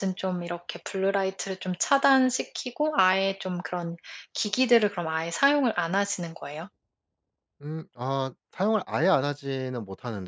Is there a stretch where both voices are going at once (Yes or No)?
No